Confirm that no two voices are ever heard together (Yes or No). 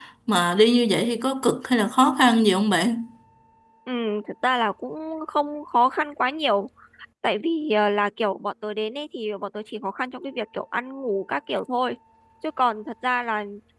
Yes